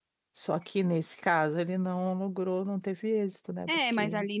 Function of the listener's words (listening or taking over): taking over